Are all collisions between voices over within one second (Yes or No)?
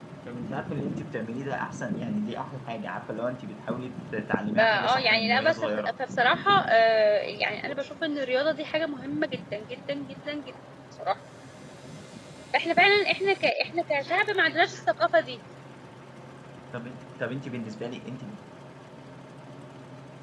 No